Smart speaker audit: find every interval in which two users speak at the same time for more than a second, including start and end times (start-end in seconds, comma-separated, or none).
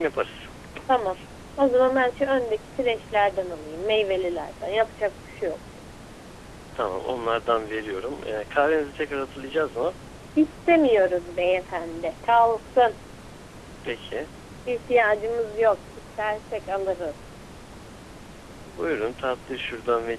none